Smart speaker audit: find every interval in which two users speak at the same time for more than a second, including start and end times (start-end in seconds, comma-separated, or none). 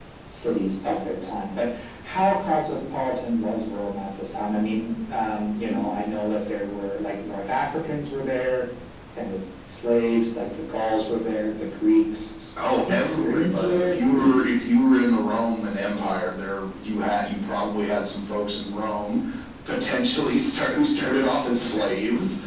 12.7-14.3